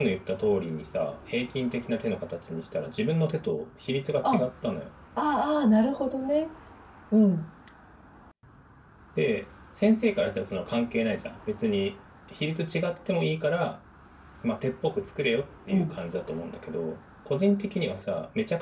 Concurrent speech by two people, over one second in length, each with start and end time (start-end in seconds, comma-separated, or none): none